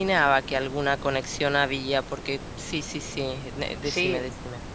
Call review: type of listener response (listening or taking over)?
taking over